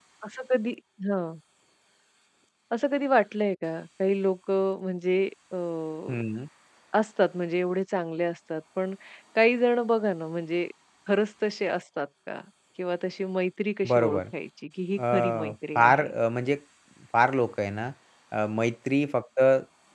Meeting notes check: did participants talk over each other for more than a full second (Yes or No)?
No